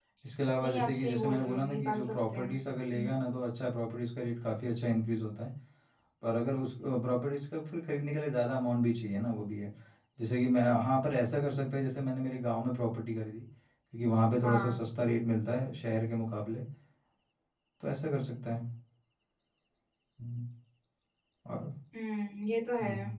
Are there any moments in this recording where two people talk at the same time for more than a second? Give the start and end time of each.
0.6-2.5

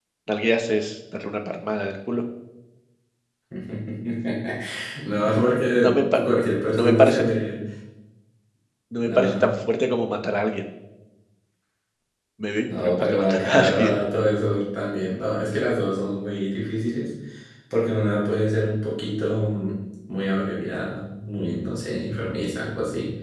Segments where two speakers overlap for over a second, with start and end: 12.7-13.9

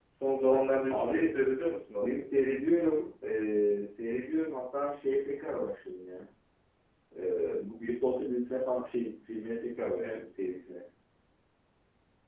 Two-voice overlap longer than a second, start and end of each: none

